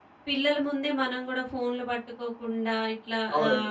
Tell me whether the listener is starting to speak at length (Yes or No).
Yes